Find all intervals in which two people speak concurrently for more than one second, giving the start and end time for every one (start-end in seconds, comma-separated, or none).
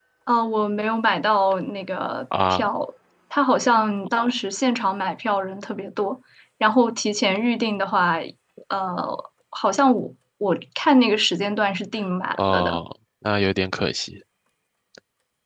none